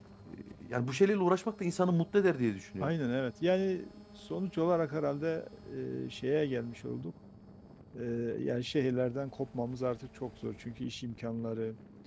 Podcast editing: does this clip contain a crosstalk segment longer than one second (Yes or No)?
No